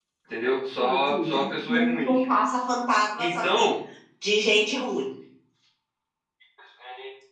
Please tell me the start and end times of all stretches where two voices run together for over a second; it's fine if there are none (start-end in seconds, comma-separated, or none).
0.8-2.2